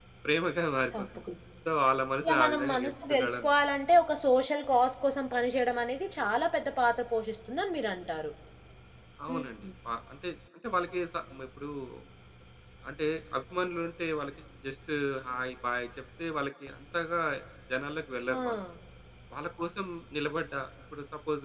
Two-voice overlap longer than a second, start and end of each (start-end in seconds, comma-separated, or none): 2.2-3.5